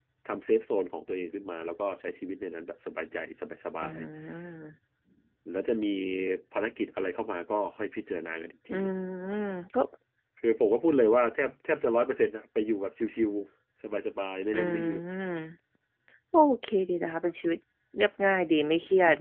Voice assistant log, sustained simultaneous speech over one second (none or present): none